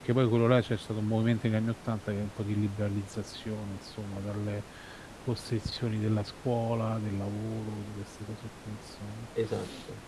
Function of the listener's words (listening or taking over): listening